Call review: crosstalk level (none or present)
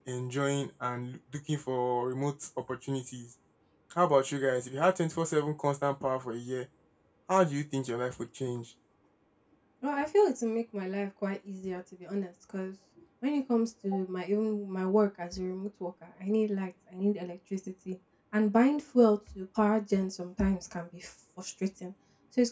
none